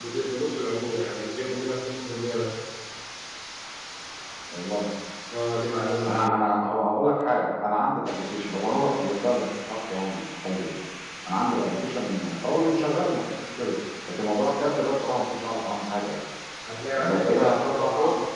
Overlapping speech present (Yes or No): Yes